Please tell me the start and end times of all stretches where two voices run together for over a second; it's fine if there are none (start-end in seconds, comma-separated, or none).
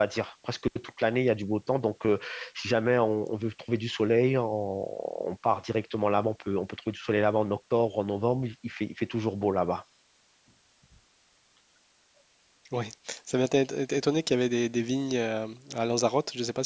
none